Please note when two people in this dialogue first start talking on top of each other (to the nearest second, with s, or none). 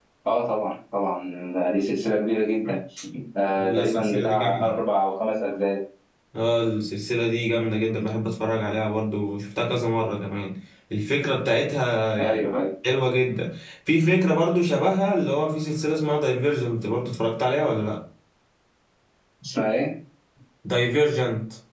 4 s